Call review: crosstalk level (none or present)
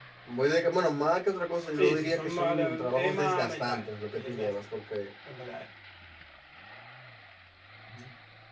present